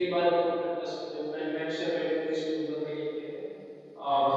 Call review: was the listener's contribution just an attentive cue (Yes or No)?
Yes